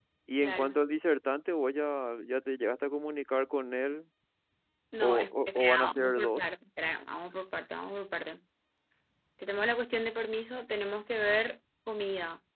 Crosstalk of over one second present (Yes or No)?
Yes